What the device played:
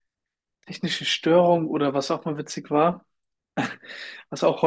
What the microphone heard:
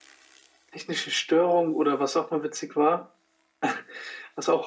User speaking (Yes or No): No